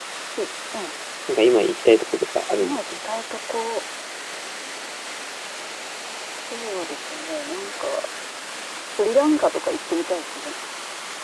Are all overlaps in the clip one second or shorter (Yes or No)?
Yes